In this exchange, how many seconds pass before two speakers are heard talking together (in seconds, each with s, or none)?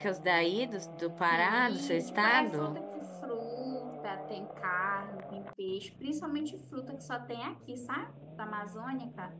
1.3 s